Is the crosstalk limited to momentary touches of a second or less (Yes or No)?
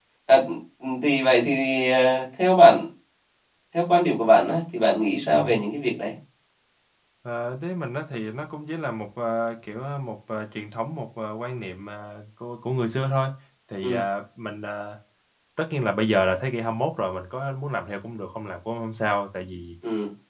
Yes